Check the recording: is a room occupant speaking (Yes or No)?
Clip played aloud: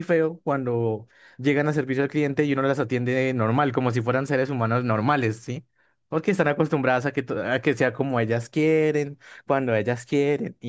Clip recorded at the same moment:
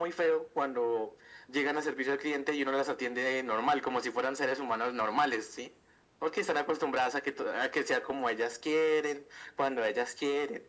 No